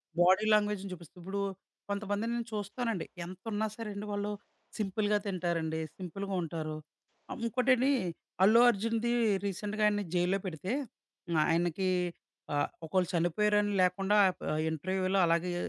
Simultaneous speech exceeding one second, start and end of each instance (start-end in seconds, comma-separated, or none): none